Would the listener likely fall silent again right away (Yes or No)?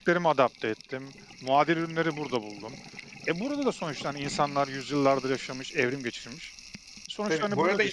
No